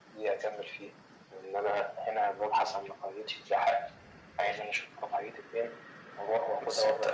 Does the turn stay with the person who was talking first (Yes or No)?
No